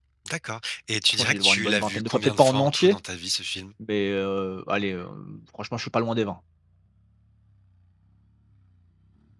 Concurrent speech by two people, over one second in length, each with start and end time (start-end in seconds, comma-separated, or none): 1.1-3.0